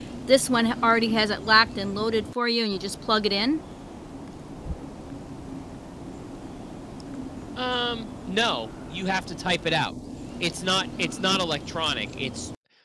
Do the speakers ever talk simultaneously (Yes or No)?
No